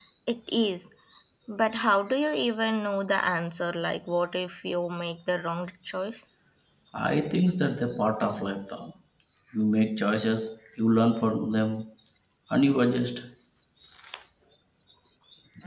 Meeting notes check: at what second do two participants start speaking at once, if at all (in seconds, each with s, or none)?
none